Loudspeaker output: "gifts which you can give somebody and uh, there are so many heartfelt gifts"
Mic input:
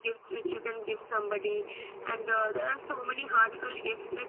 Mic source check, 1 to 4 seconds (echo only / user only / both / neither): echo only